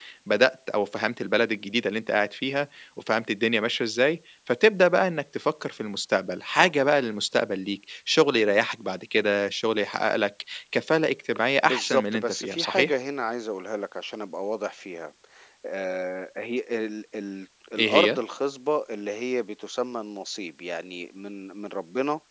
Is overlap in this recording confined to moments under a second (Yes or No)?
No